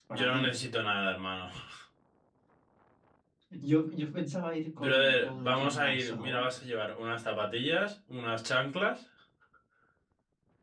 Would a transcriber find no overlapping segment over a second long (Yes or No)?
No